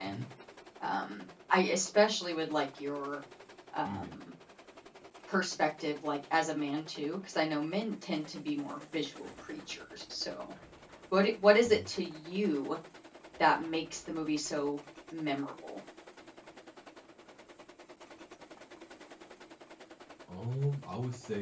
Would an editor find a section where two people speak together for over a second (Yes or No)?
No